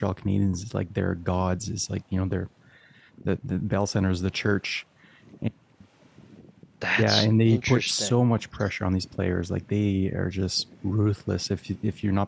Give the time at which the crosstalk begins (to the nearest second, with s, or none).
7 s